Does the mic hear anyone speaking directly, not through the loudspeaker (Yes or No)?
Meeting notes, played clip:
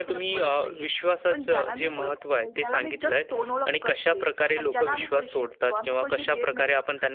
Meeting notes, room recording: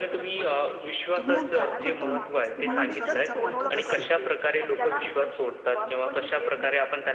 Yes